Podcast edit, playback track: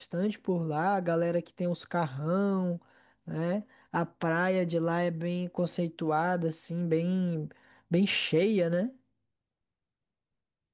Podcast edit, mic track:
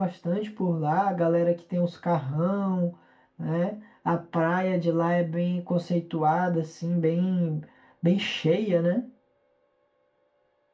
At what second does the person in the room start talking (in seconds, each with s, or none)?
none